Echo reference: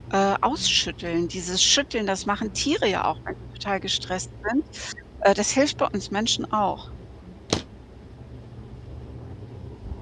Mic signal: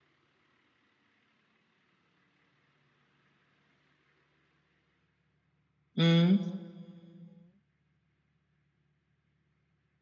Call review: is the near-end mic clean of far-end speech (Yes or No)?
Yes